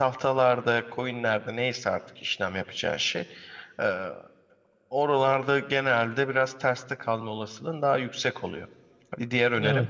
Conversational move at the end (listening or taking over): listening